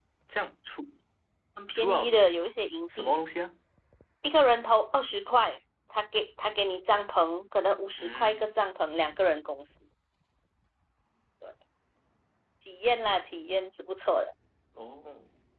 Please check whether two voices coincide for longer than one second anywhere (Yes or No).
No